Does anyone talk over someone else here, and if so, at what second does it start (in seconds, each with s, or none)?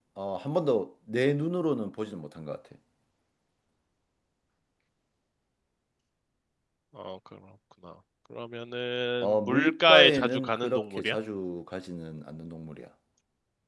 9.2 s